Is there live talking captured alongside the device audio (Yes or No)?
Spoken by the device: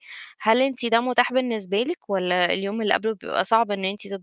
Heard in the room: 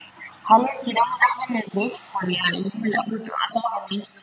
No